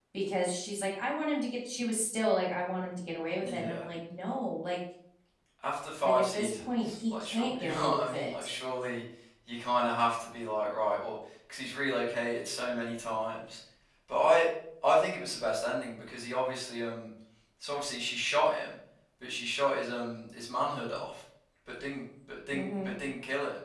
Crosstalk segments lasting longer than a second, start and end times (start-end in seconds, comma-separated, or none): 6.0-8.5